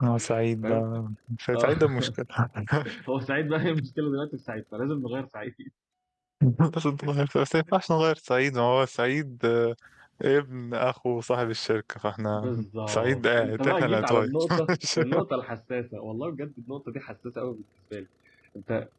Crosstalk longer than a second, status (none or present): present